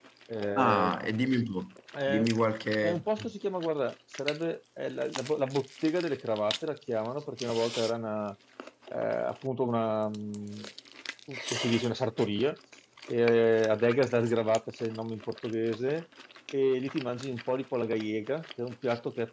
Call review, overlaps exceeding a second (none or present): none